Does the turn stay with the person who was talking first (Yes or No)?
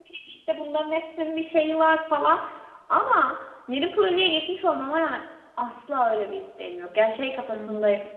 Yes